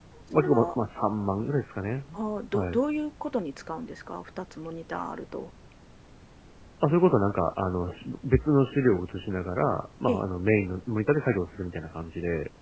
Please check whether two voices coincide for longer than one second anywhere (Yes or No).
No